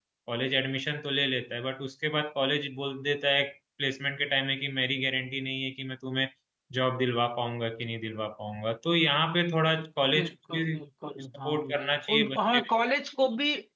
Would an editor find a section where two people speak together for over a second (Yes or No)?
Yes